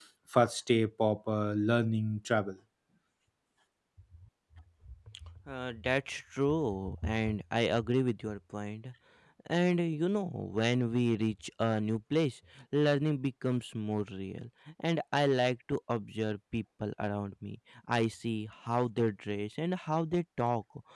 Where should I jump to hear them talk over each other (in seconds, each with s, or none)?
none